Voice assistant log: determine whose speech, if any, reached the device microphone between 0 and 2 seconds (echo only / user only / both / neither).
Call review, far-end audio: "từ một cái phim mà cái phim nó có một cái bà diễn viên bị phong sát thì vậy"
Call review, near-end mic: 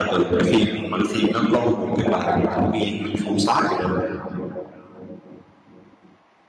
echo only